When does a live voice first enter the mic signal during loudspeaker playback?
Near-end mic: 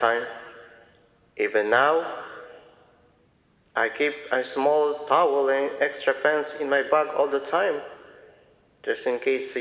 none

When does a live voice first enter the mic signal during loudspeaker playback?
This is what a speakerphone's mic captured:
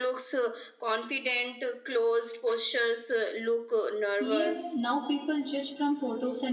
4.2 s

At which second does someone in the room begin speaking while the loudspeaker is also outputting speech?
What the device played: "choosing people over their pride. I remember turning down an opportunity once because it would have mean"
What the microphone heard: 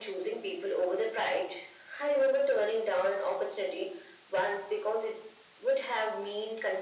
none

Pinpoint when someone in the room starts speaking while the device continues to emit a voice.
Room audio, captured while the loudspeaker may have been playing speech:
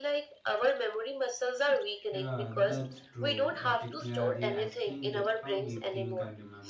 2.1 s

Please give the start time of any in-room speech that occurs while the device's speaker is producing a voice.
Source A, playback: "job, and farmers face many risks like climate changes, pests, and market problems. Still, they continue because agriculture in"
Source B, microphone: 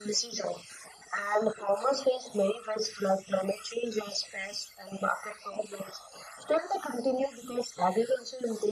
none

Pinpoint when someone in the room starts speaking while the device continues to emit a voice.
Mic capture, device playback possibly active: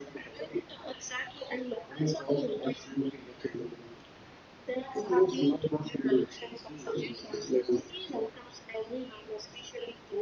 none

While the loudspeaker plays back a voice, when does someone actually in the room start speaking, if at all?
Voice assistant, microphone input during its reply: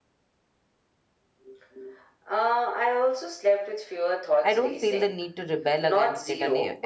4.4 s

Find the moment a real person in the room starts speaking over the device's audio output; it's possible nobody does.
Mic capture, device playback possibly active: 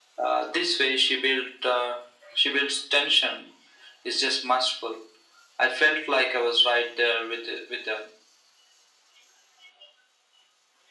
none

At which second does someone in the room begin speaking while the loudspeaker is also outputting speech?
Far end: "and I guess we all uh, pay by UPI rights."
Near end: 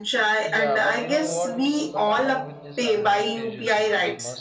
0.4 s

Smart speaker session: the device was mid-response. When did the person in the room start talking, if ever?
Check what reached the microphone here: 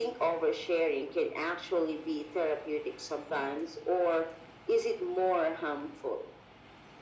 none

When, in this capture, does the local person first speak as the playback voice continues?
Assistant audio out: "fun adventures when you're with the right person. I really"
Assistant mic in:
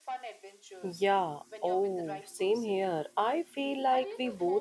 0.8 s

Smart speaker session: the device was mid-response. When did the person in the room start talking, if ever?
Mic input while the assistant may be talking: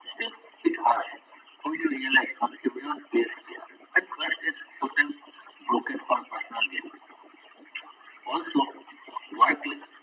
none

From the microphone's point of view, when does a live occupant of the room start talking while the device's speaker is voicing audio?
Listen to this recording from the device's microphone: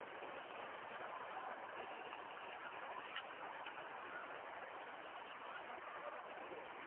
none

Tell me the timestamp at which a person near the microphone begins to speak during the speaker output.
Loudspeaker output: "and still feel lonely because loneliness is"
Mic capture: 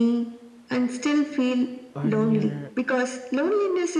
1.9 s

